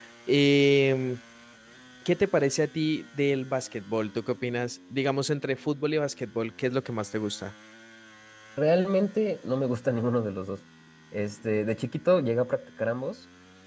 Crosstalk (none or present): none